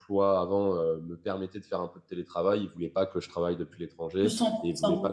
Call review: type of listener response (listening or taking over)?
listening